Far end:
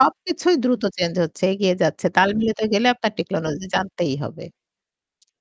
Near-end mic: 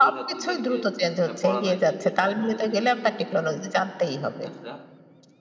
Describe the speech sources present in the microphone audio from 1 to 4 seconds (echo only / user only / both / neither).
both